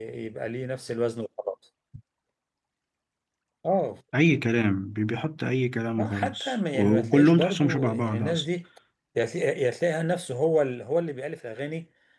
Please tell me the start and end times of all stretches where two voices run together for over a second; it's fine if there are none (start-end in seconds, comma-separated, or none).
6.0-8.4